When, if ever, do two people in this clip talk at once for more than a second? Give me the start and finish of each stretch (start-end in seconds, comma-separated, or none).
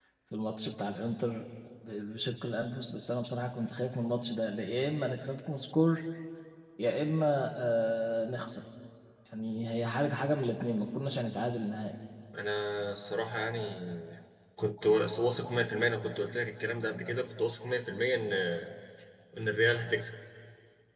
none